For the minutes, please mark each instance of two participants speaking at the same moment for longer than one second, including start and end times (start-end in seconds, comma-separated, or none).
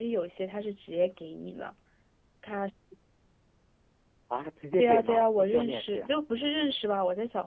4.8-6.1